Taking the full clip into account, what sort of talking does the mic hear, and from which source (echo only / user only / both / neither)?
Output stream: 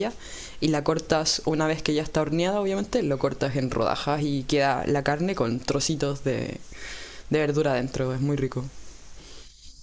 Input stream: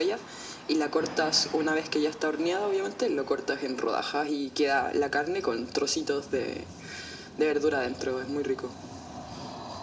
echo only